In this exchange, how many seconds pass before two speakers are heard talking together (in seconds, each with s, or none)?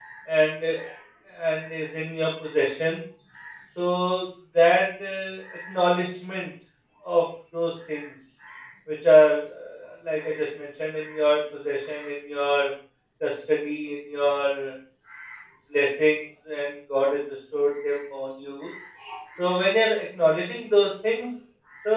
none